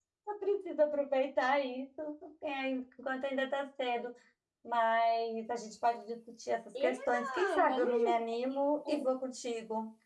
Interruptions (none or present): present